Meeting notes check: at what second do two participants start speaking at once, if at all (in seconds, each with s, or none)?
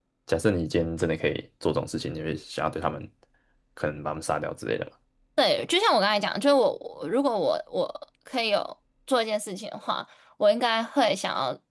none